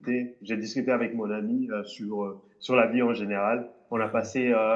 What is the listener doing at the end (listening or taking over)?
listening